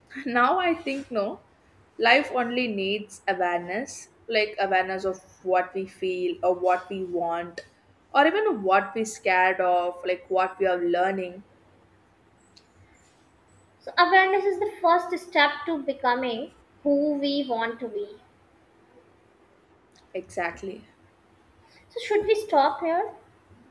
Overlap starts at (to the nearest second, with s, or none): none